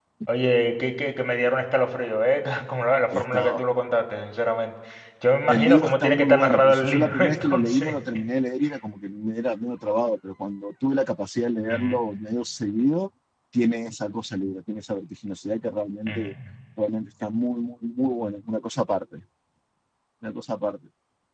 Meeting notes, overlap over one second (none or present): present